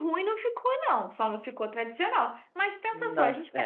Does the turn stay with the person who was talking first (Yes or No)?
Yes